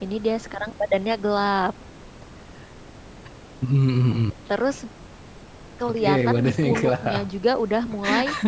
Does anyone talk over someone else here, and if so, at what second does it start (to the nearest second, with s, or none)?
6 s